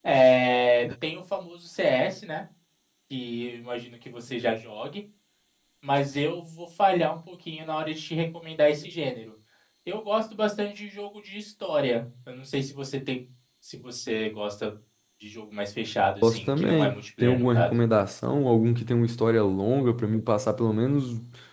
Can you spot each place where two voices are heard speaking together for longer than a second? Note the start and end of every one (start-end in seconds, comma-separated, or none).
16.2-17.7